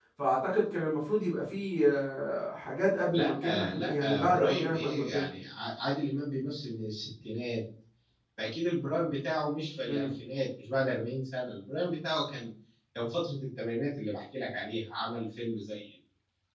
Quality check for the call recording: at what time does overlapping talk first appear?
3.1 s

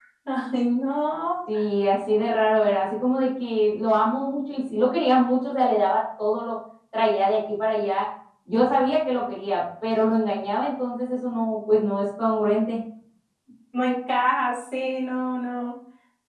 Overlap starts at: none

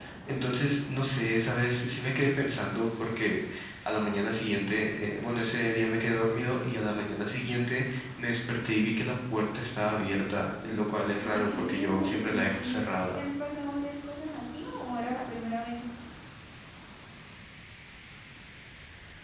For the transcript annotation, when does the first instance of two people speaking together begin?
11.2 s

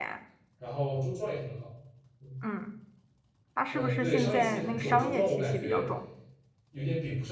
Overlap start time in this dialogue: 3.7 s

